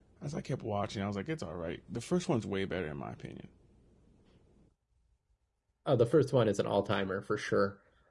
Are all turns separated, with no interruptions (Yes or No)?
Yes